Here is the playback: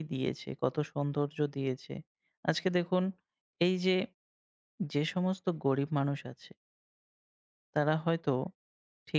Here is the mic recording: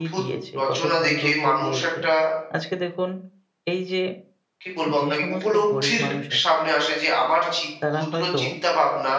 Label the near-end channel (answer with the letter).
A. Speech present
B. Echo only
A